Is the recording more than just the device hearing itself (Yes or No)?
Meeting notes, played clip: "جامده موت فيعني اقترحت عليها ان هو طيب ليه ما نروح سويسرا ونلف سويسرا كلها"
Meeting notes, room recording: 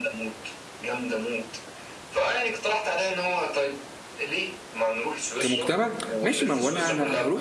Yes